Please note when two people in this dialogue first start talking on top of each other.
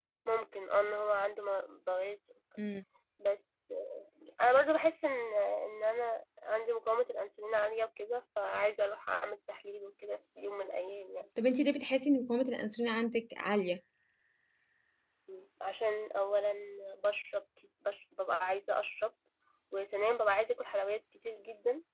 none

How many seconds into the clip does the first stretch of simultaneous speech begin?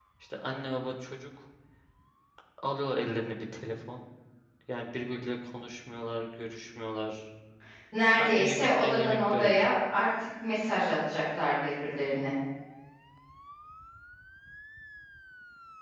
8.2 s

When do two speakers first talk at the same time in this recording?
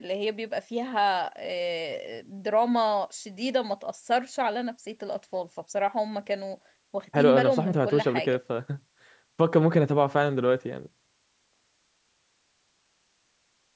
7.2 s

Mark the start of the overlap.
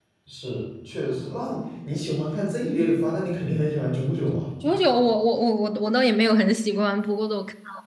none

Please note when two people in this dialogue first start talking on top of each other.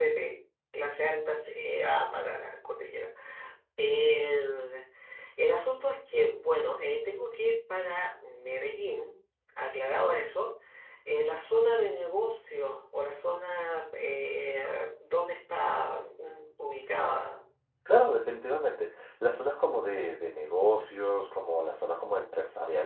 none

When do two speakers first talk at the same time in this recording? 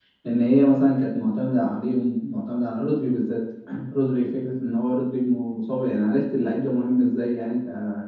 none

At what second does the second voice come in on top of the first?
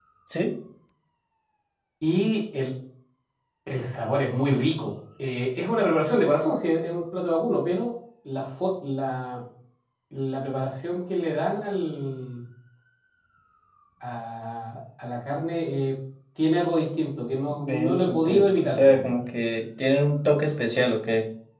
17.5 s

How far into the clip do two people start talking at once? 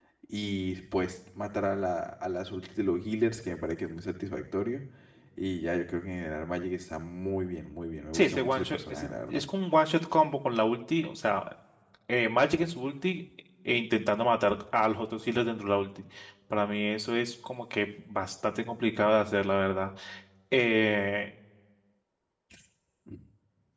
8.1 s

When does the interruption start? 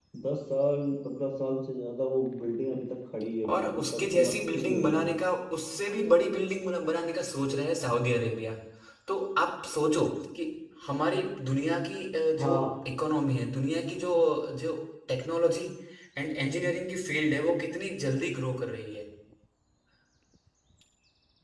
3.5 s

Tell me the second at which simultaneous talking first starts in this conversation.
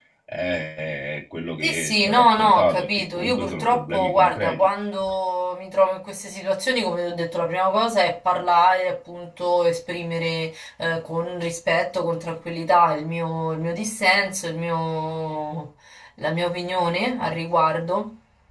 1.6 s

